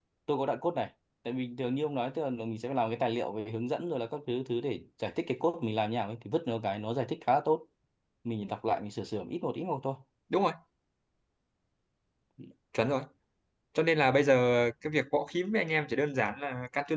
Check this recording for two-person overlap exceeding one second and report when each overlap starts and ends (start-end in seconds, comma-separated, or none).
none